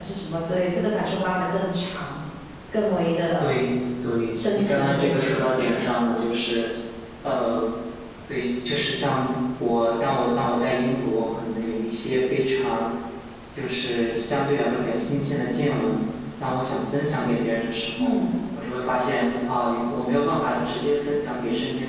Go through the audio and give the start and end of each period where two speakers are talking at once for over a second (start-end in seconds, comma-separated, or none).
4.3-5.7